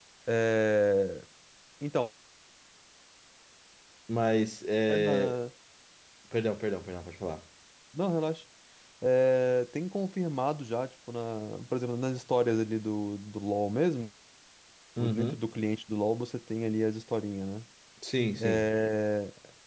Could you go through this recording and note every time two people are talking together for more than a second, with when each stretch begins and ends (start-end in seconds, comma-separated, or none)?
none